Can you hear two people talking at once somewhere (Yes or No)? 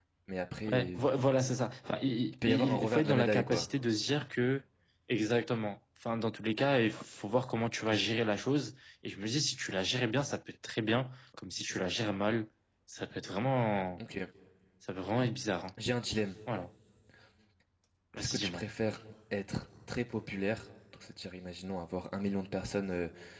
Yes